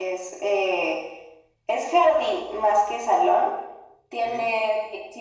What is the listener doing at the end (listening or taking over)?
listening